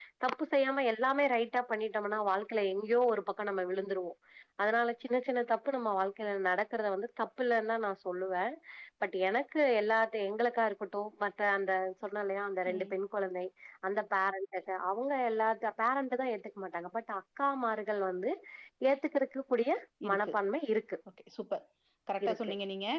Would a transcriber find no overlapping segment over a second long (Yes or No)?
Yes